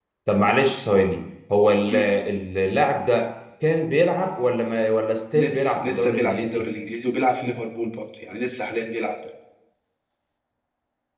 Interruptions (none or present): present